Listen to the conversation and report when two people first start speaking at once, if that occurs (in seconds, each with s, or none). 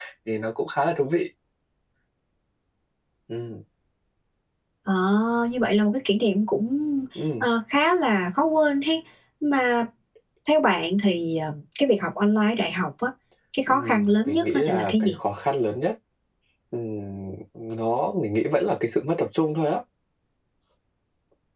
13.7 s